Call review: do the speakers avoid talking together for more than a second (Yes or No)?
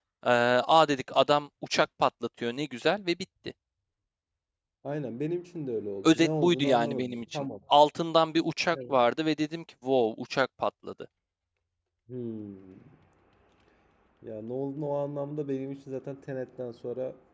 No